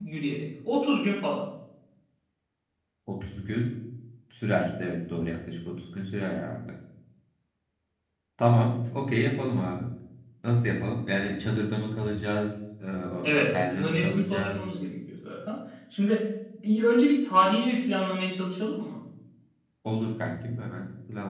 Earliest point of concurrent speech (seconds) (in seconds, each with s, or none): 13.3 s